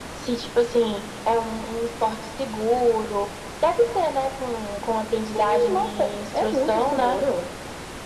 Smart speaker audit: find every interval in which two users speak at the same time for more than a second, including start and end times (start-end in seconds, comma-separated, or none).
5.2-7.2